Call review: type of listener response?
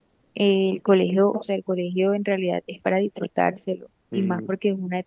listening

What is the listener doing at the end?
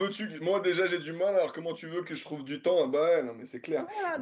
taking over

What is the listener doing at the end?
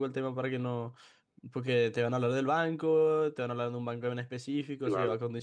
listening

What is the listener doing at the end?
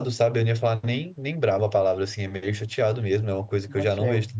listening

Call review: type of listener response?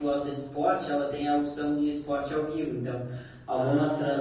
listening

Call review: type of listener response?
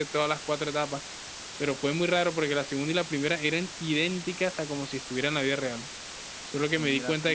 listening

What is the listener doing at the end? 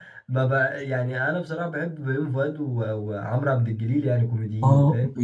taking over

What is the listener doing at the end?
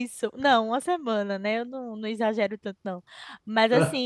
listening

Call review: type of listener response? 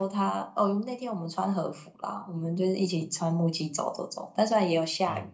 listening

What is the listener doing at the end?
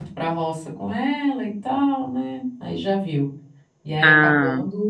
listening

